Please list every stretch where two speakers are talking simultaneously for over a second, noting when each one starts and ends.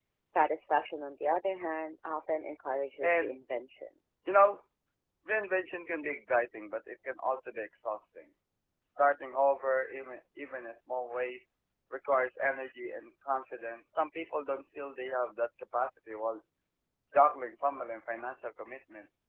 none

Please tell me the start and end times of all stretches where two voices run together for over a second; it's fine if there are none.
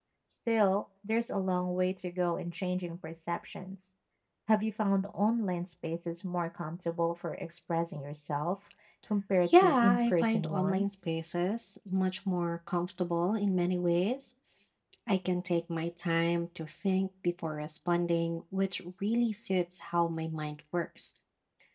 9.4-11.0

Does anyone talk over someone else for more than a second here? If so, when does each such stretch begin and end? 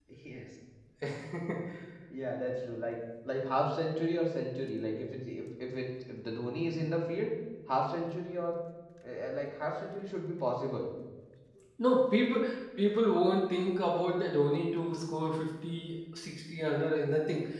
none

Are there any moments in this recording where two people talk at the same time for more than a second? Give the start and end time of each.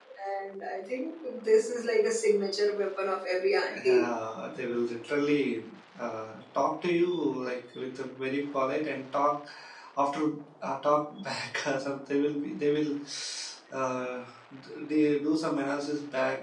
none

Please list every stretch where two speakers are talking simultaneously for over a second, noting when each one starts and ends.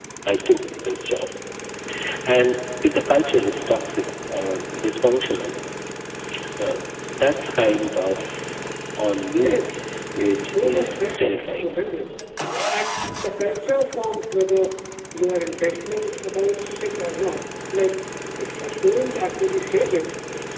10.2-11.7

